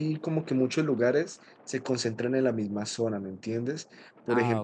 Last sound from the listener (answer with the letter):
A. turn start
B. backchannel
B